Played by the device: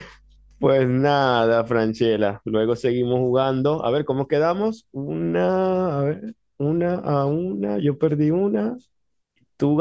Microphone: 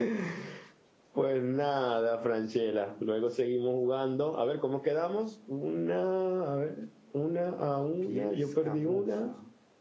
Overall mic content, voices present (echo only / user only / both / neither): both